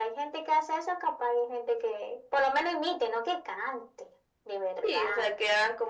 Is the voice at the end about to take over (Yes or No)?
Yes